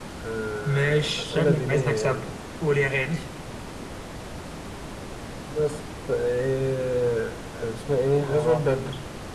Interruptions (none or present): present